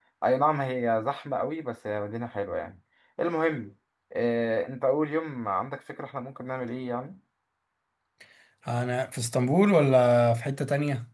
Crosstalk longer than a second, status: none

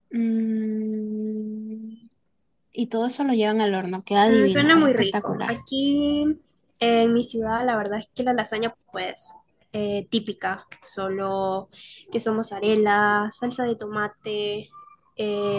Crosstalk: present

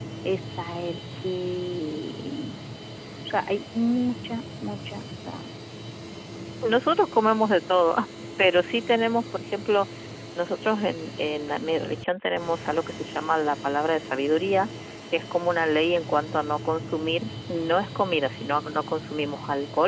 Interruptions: none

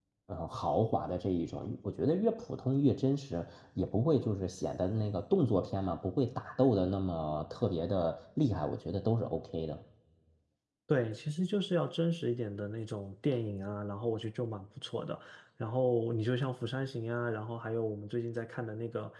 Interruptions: none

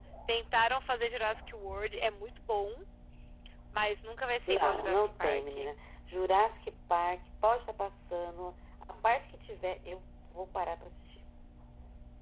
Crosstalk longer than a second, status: present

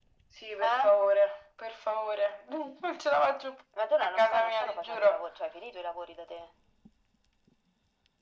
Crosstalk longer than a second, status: present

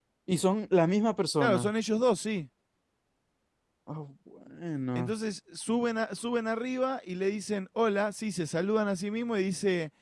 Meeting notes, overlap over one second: none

